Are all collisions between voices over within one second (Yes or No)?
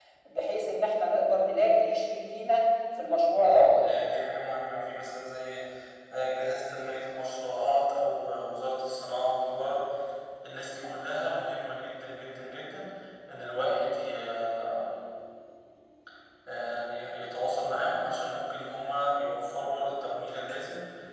Yes